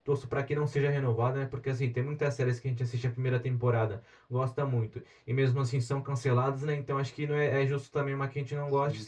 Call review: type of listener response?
listening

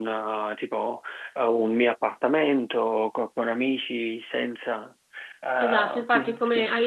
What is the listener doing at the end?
taking over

